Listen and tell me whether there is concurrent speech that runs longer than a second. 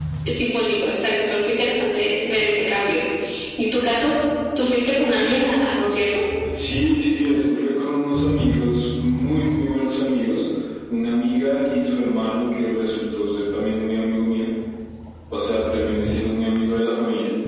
No

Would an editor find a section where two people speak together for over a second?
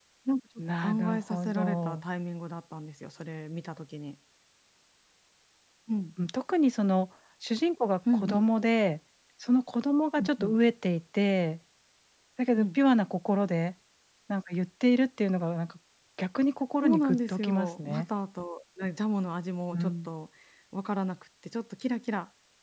Yes, from 0.8 s

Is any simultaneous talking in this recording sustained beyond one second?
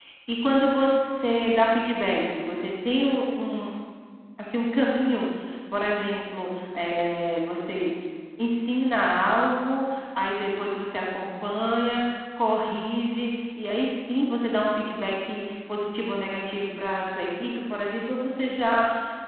No

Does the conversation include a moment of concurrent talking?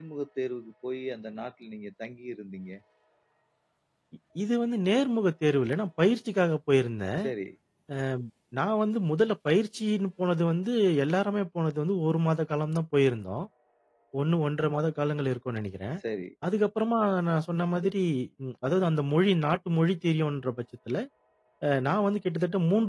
No

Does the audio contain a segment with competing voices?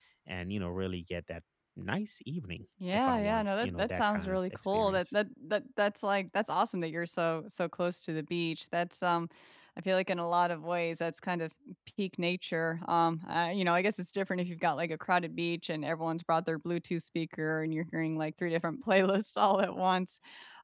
Yes, from 2.8 s

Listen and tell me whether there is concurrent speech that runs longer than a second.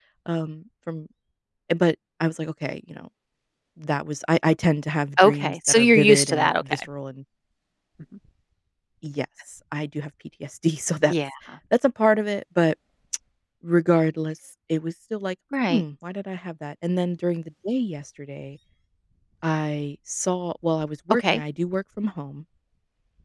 Yes, from 5.2 s

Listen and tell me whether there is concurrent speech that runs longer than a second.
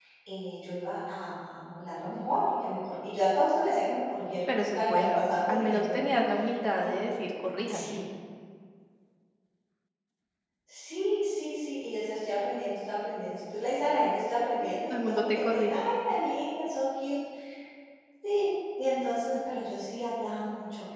Yes, from 4.5 s

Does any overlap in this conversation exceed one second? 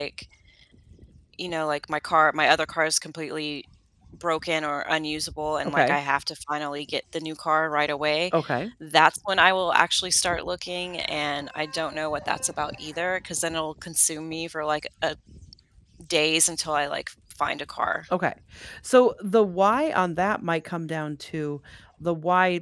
No

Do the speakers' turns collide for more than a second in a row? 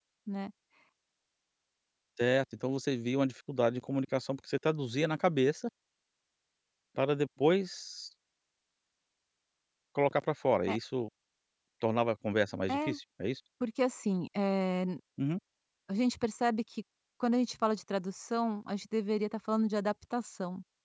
No

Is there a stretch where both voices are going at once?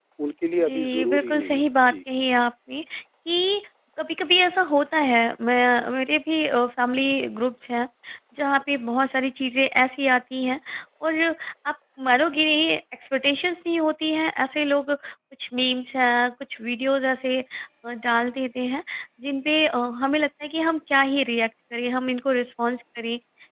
Yes, from 0.6 s

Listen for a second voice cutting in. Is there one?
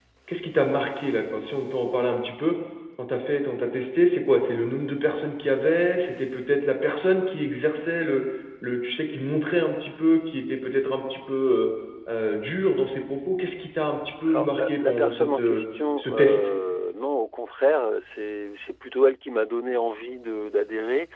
Yes, from 14.3 s

